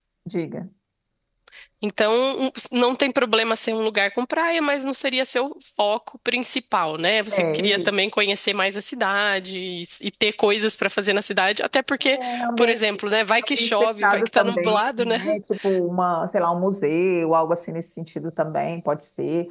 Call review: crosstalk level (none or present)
present